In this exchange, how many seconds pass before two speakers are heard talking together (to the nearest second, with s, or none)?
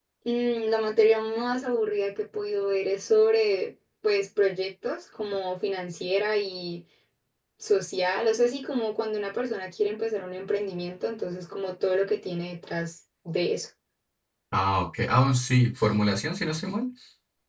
none